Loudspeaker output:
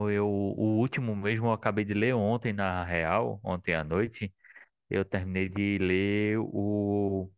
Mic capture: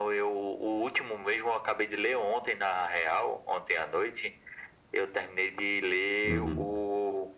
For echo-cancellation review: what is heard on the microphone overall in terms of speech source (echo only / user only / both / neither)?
both